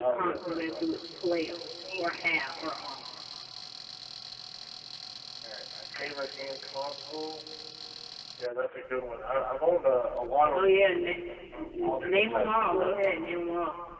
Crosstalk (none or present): present